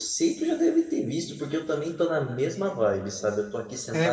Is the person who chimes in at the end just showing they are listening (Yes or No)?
Yes